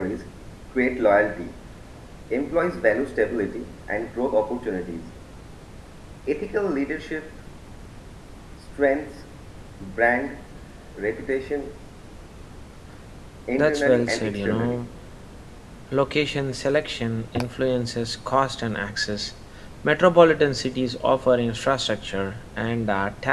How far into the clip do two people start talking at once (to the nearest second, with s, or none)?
14 s